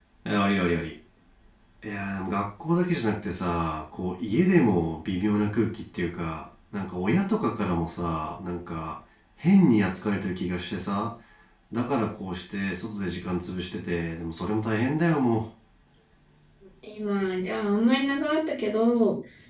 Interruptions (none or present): none